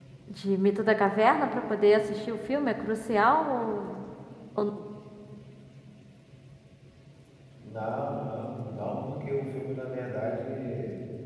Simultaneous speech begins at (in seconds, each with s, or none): none